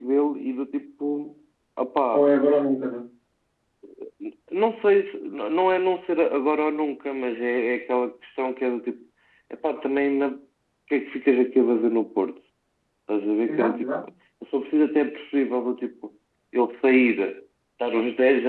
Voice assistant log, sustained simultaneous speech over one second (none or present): none